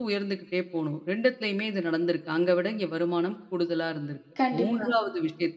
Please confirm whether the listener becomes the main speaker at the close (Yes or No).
No